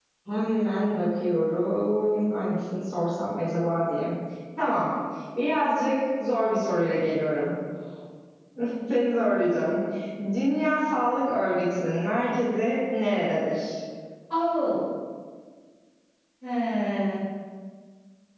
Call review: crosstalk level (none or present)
none